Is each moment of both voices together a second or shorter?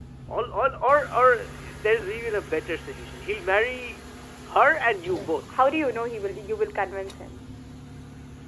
Yes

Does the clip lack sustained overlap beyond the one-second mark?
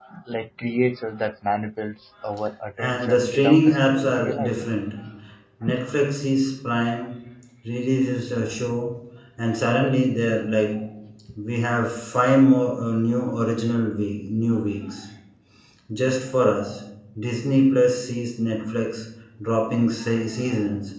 No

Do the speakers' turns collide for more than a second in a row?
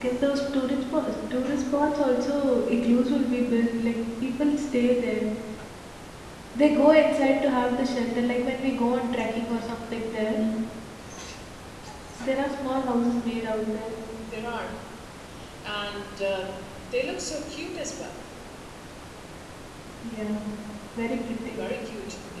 No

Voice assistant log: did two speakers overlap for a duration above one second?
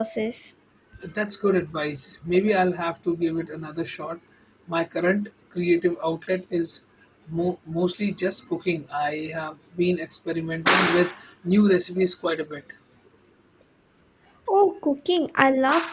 No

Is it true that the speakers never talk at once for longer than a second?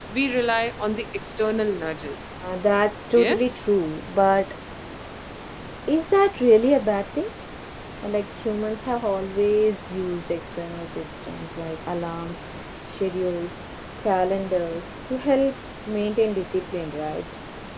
Yes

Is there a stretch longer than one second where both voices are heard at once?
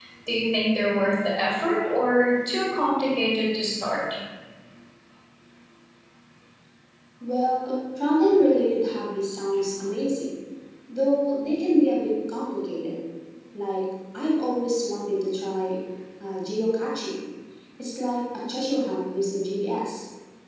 No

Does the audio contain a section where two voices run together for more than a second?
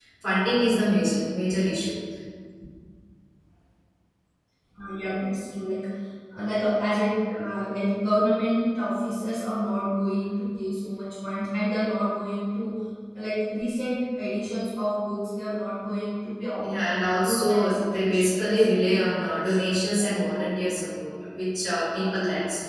Yes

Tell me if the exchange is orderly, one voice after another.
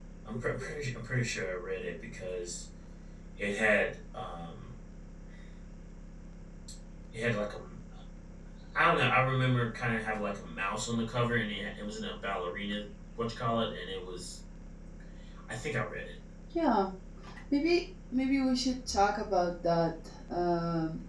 Yes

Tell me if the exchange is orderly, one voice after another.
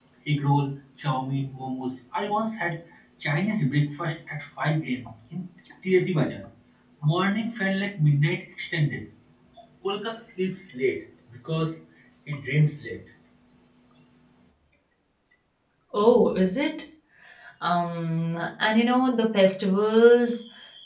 Yes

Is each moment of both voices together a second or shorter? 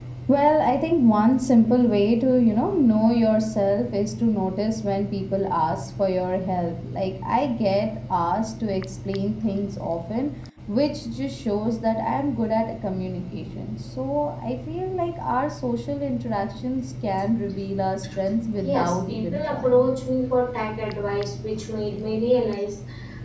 No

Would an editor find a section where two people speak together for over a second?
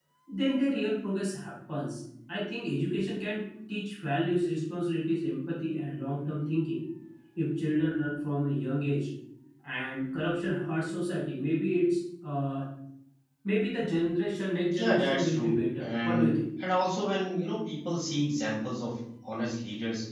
Yes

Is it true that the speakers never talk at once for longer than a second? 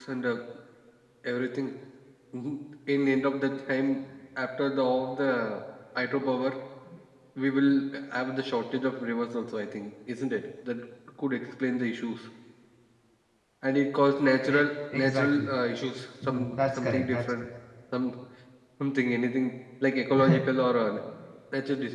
Yes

